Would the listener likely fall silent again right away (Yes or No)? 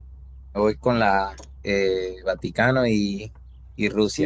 No